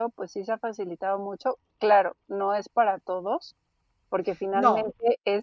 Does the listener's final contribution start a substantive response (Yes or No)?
No